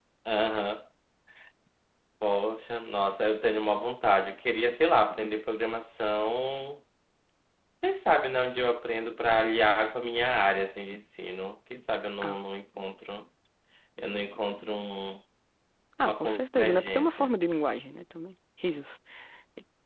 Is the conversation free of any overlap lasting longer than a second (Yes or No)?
No